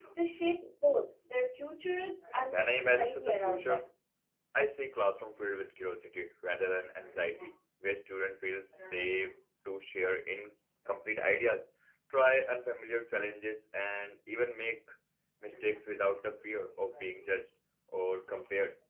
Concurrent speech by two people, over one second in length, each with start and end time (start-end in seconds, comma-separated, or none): 2.4-3.8